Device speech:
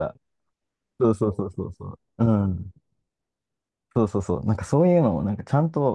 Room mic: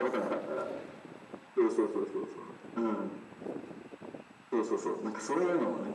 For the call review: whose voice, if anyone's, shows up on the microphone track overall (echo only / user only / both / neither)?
echo only